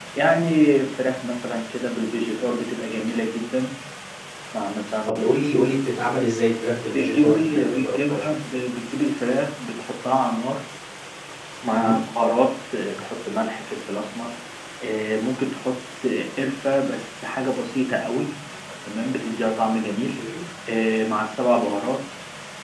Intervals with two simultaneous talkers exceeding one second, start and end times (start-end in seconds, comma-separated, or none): 6.9-8.4